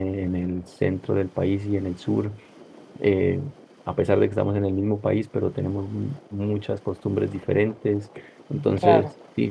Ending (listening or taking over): listening